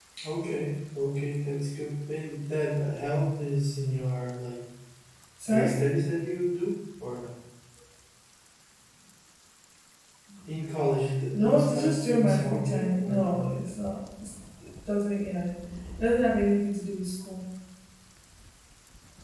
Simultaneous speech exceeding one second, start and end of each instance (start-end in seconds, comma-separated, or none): 11.3-13.4